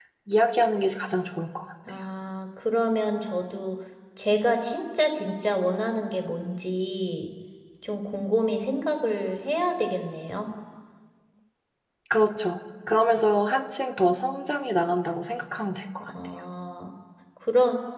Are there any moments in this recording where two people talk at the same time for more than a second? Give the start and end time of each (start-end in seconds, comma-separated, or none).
none